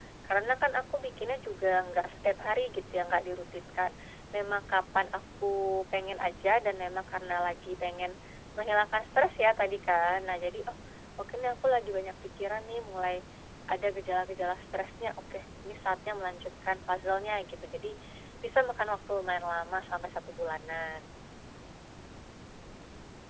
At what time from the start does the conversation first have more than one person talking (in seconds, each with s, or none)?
none